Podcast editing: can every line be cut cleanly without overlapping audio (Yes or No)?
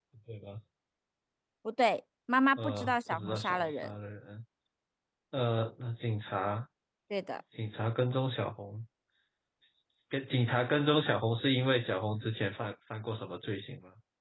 No